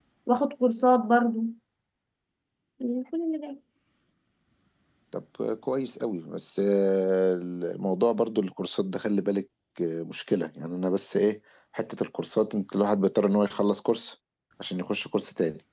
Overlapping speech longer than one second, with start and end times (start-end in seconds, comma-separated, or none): none